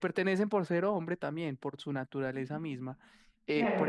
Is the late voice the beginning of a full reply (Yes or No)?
No